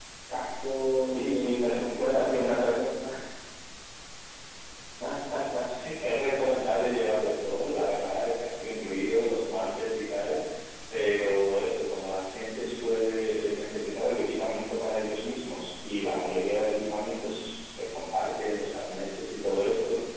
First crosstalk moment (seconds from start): 1.0 s

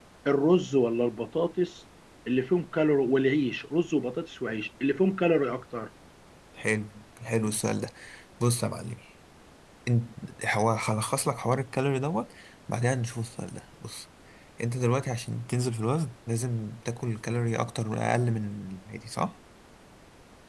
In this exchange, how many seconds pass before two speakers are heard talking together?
none

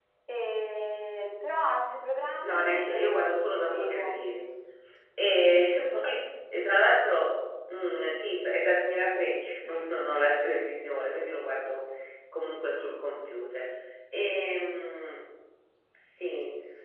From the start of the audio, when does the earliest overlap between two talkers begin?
2.4 s

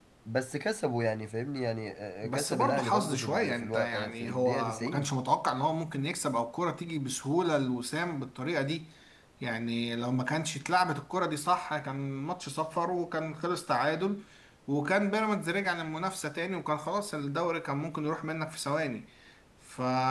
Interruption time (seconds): 2.2 s

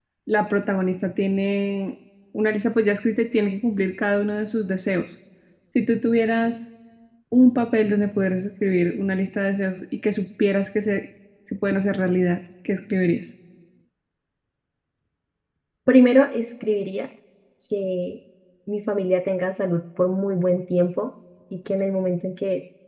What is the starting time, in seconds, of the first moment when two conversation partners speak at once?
none

